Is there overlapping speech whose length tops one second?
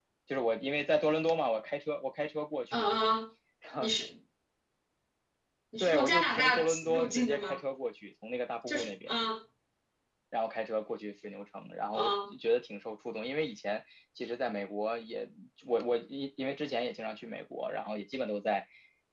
Yes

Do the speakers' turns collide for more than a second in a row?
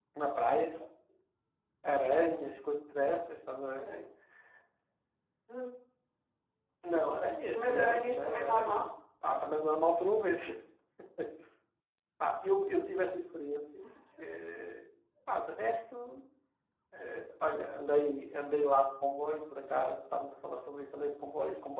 Yes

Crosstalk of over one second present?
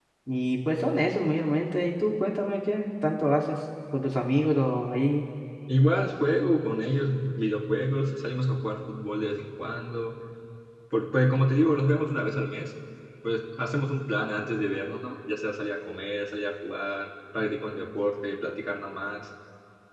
No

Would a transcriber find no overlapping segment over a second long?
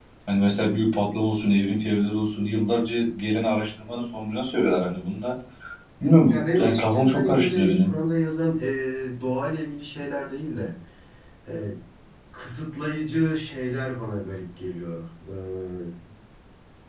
No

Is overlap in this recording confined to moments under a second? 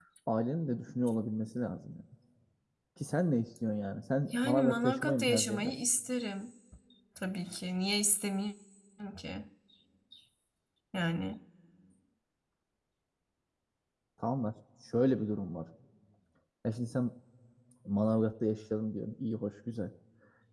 No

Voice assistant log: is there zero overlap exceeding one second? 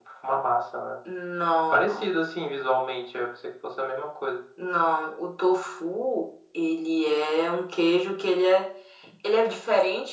Yes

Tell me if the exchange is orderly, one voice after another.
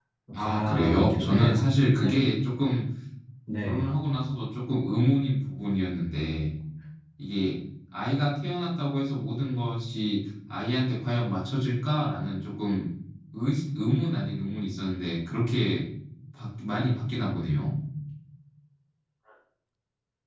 No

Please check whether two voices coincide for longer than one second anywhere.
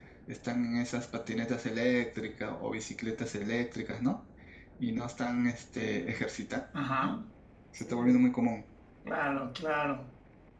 No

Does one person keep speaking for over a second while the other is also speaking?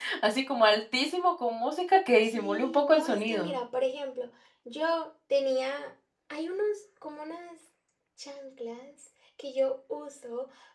Yes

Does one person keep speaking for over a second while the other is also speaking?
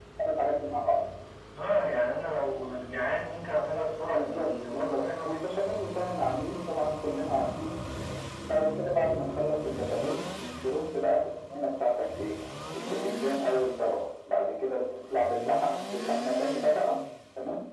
Yes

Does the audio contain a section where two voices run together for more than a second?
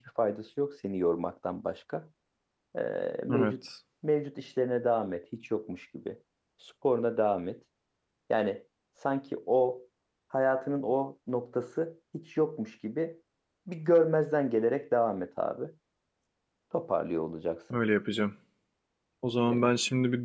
No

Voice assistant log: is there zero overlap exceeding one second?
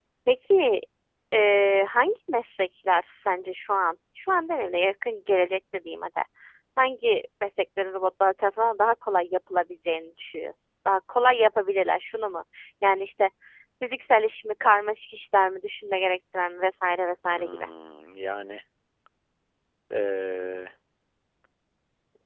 Yes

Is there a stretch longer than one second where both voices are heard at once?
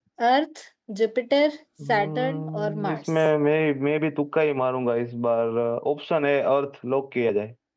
Yes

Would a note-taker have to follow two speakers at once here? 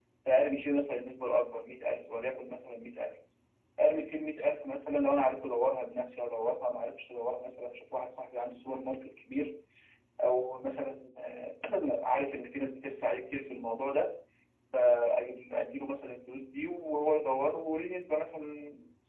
No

